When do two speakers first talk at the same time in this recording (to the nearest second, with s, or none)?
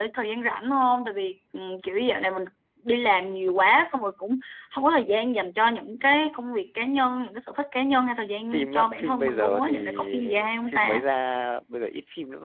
9 s